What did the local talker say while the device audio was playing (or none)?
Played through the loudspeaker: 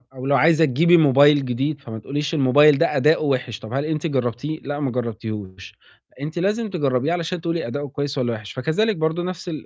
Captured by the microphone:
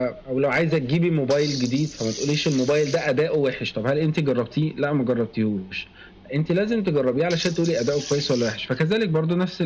none